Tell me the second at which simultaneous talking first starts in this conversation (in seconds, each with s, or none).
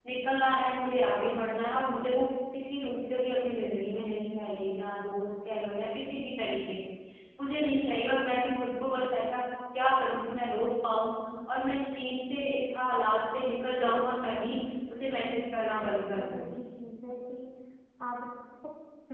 15.0 s